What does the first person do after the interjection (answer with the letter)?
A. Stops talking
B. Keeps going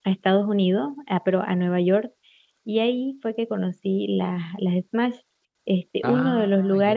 B